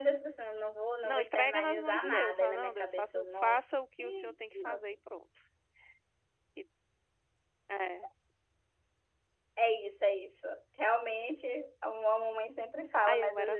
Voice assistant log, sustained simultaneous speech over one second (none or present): present